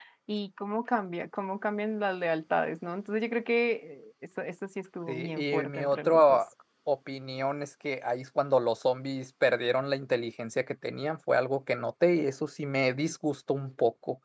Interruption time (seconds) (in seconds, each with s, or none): 5.1 s